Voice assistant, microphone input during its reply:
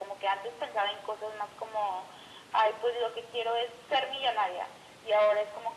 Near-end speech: none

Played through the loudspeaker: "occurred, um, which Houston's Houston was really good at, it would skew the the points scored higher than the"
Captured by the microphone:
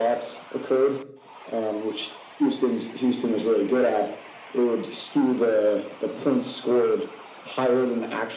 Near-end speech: none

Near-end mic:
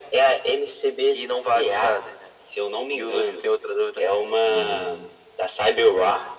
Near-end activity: present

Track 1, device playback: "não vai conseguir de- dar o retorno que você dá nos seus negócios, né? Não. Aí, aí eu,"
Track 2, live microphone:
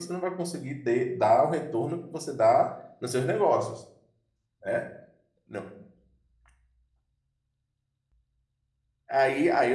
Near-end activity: none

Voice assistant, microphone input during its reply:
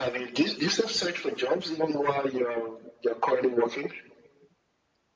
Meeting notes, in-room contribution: none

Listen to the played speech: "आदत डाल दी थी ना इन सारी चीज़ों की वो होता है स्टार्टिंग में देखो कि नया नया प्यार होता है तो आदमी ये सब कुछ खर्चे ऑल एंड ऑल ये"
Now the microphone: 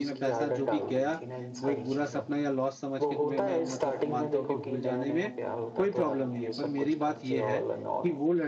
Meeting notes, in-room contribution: present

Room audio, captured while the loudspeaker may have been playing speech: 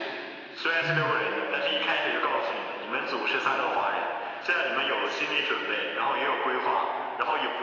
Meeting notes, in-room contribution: present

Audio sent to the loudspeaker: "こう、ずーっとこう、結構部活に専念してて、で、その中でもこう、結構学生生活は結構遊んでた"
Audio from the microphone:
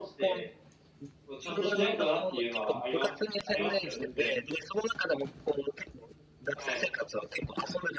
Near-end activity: present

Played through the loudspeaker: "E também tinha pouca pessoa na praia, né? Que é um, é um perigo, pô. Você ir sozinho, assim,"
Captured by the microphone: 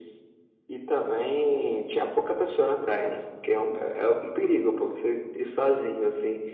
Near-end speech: none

